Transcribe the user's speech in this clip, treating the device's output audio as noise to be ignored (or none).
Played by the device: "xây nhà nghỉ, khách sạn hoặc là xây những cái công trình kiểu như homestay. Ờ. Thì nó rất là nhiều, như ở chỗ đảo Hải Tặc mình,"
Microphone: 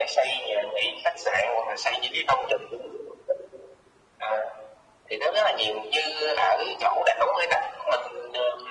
none